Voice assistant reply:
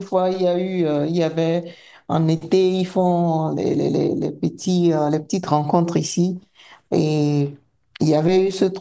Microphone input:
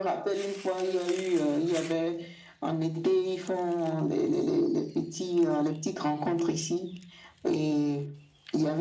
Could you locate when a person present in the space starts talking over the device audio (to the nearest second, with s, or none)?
none